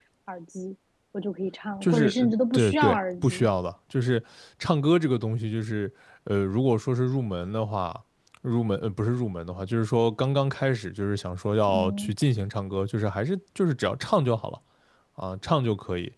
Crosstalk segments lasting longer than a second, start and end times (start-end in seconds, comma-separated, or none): 1.8-3.5